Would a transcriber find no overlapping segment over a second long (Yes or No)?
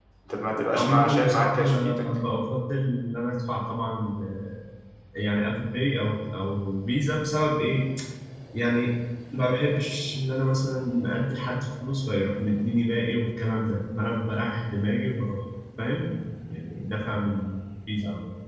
No